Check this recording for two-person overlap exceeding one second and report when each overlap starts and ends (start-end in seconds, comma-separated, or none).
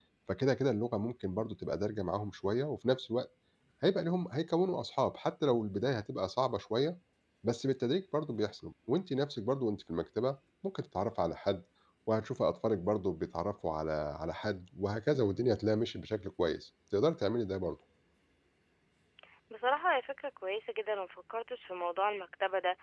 none